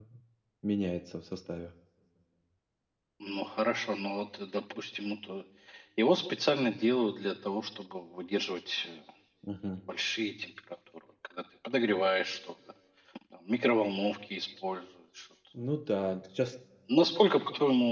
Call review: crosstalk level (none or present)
none